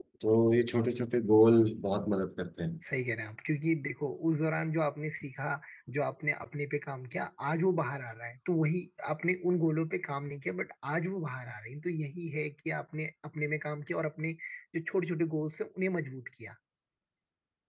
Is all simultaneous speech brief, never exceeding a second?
Yes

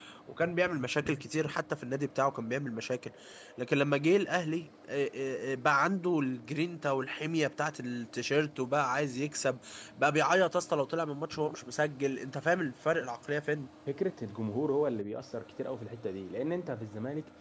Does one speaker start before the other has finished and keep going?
No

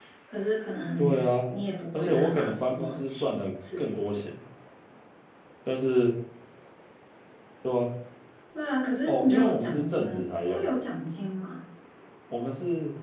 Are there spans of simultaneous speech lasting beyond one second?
Yes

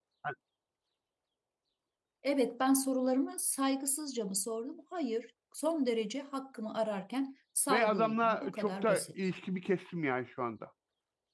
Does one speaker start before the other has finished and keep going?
Yes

